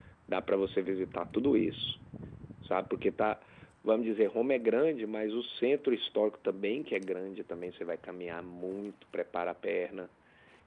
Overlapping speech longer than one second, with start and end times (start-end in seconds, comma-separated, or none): none